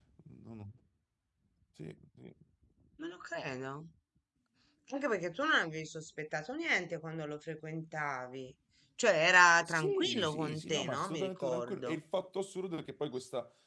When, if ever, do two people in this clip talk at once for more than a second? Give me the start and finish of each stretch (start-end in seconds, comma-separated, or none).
9.7-12.0